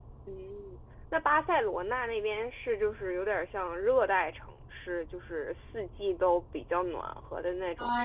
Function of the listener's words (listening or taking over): taking over